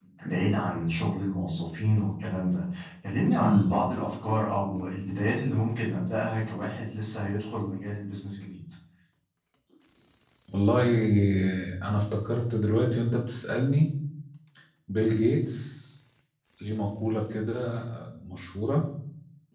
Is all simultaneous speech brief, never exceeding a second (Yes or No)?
Yes